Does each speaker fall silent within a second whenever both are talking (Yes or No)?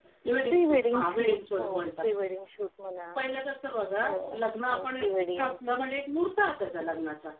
No